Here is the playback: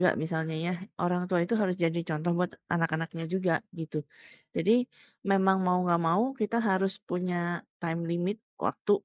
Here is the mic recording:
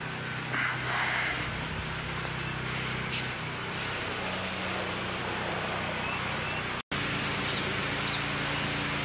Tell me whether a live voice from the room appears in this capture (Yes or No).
No